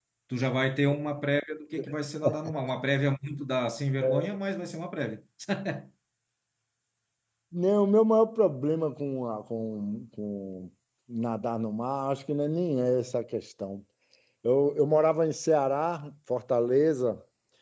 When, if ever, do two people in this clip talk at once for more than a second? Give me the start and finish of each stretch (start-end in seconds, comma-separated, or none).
none